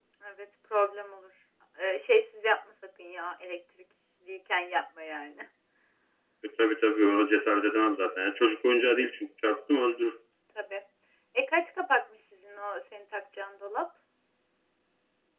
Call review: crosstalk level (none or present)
none